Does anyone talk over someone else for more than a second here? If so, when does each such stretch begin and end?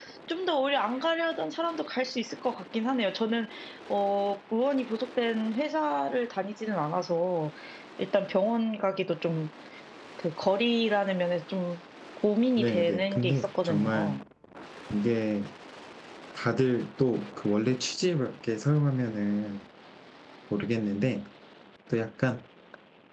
12.6-14.2

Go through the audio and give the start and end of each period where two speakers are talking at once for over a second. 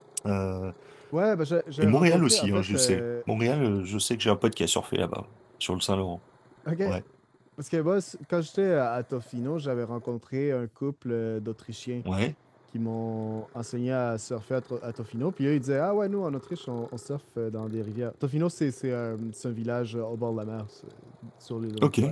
1.8-3.0

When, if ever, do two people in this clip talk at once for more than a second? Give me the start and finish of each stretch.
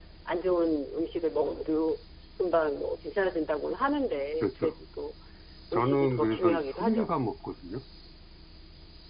5.7-7.1

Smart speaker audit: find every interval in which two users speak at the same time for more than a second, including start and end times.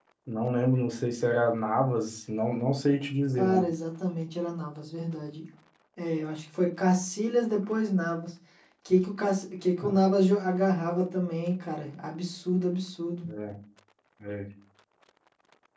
none

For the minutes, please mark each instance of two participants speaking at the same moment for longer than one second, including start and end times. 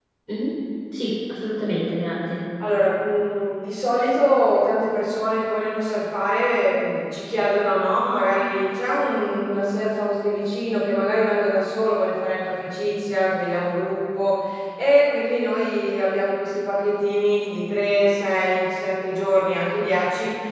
none

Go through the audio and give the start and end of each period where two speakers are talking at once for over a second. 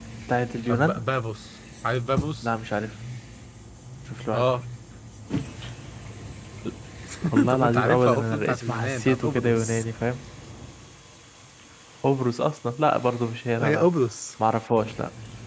7.5-9.8

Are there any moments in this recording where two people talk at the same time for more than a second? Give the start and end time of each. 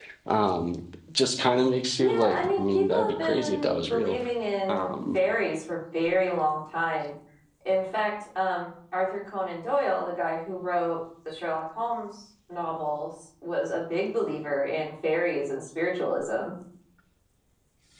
2.0-4.2

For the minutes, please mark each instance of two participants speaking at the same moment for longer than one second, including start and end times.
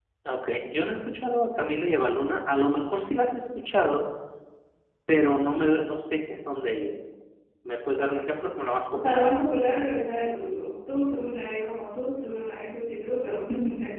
none

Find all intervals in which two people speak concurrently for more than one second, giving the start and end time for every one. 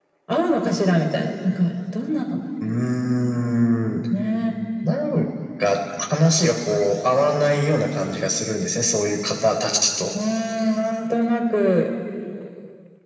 none

